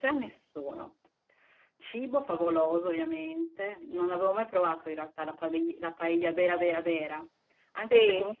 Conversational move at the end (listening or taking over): listening